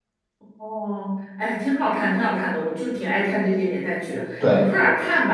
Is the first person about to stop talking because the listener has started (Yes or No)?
No